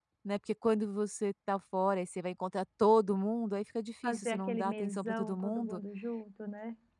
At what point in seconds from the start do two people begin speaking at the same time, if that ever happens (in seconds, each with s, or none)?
4.0 s